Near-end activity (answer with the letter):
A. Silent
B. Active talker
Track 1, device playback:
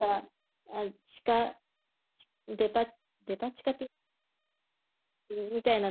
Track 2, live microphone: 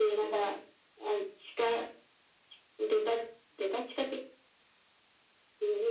A